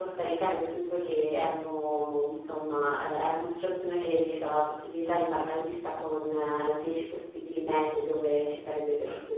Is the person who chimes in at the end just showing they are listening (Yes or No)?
Yes